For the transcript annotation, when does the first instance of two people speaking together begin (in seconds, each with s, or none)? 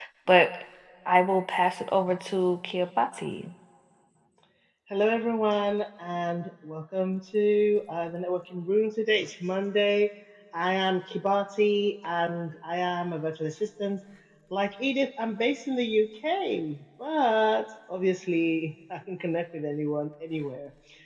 none